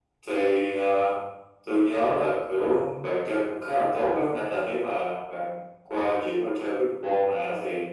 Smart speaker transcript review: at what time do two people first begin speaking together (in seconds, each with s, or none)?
none